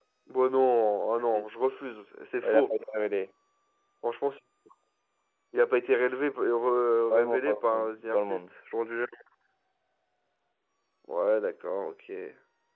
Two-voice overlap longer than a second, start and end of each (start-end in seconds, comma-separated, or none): 7.1-8.4